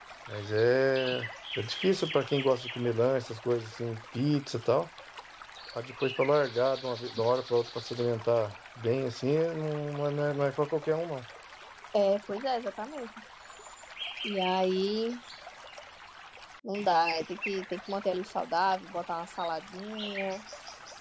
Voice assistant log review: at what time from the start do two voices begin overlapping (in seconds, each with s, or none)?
none